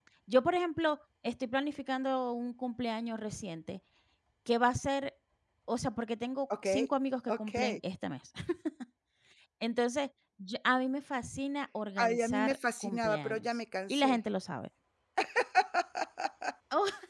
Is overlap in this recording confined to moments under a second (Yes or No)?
No